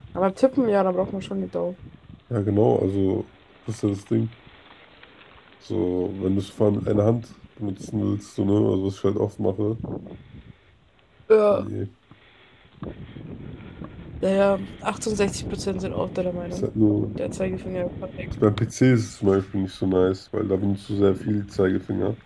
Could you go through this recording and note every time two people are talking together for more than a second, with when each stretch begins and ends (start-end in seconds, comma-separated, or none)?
none